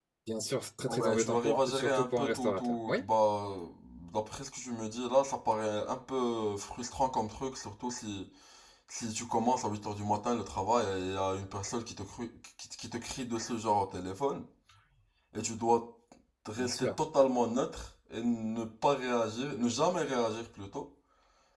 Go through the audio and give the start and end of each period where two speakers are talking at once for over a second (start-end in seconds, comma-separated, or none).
0.9-3.0